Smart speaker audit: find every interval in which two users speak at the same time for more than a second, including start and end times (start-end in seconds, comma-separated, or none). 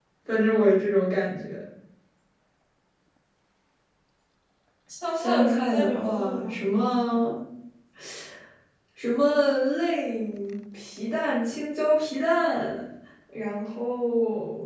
5.1-6.5